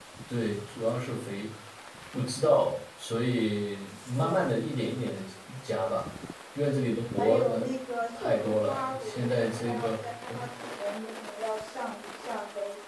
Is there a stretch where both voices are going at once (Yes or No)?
Yes